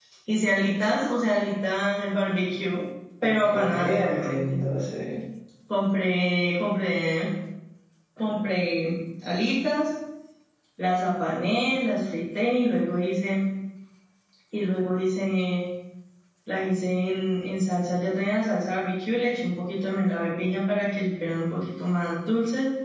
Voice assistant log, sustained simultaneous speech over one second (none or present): present